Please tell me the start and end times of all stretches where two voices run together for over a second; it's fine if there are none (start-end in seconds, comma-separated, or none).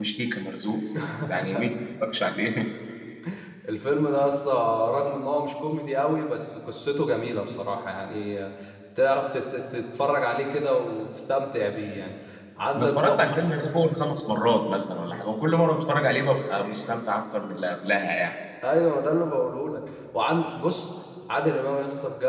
none